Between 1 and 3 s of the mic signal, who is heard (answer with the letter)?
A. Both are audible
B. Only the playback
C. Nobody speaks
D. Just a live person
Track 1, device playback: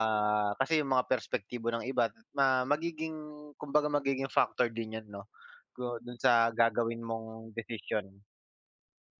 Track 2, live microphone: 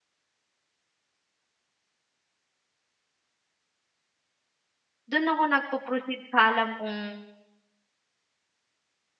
C